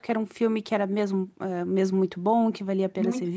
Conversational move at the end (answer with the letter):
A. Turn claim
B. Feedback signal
B